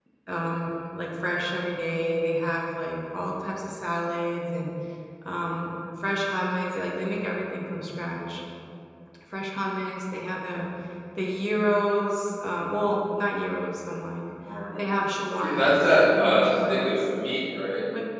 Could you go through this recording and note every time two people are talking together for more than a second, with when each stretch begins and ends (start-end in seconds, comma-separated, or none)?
15.4-17.1